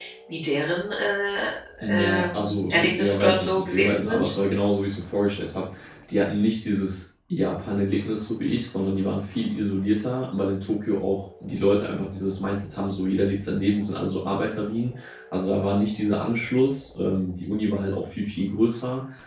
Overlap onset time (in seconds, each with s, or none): 1.8 s